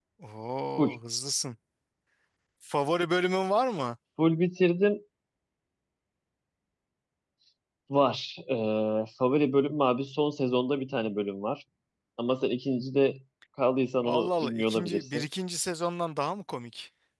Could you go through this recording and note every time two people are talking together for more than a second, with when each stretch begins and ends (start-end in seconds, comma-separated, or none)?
14.0-15.3